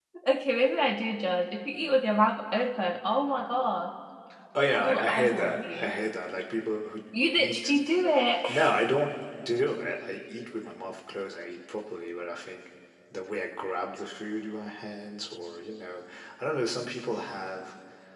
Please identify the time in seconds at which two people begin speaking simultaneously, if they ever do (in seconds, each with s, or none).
4.7 s